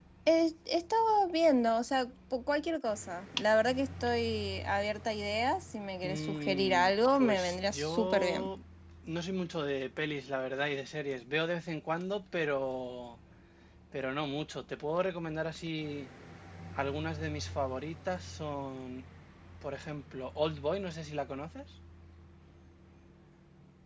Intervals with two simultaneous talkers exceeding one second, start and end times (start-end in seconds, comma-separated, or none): 6.0-8.5